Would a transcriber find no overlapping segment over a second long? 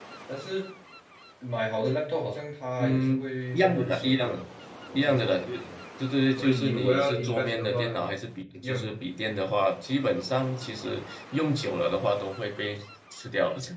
No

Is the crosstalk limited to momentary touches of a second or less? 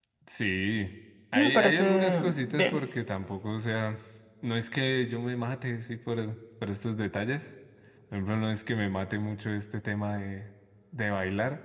No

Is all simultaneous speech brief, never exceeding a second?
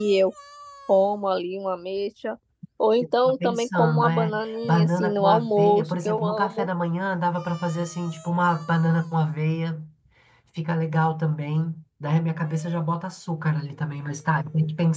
No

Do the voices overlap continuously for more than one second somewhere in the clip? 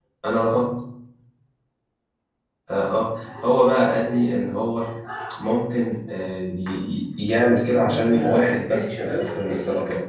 Yes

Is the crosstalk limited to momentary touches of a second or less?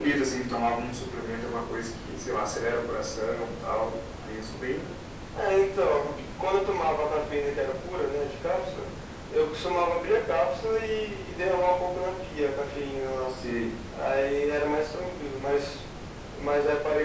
Yes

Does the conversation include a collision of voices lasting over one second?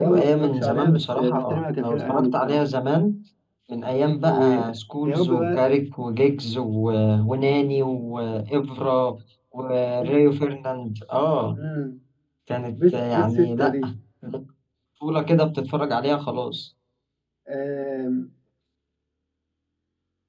Yes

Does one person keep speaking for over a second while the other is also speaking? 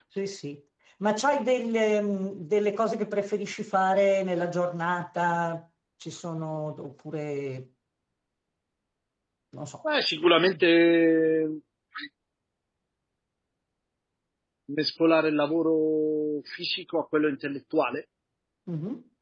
No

